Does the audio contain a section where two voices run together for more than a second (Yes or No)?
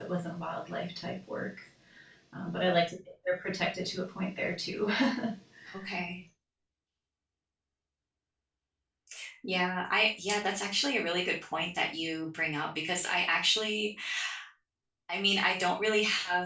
No